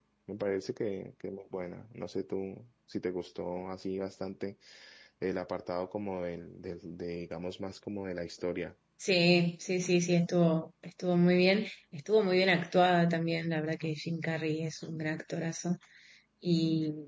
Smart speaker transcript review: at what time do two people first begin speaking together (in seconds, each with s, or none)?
none